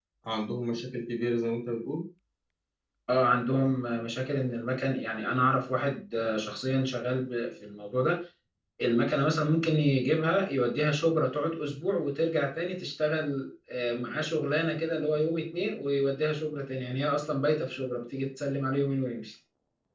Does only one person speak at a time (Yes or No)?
Yes